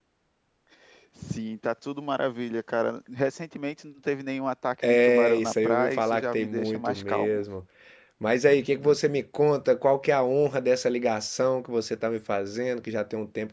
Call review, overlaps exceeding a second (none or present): present